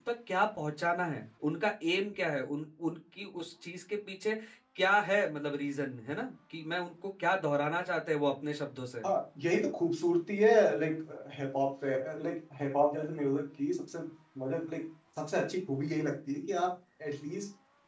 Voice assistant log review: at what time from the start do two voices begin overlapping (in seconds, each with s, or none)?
none